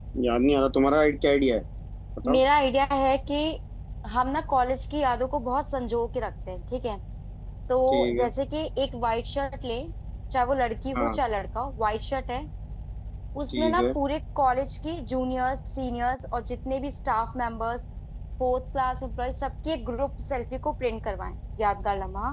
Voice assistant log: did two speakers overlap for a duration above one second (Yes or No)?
No